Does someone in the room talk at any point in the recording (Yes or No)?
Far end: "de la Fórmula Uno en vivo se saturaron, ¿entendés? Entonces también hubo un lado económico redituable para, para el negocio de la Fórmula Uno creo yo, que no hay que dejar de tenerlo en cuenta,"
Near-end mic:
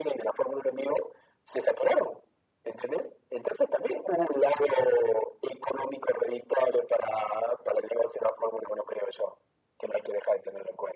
No